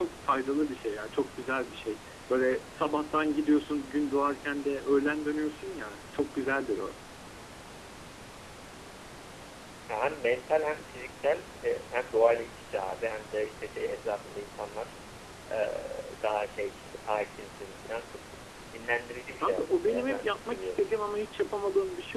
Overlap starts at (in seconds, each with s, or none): 19.4 s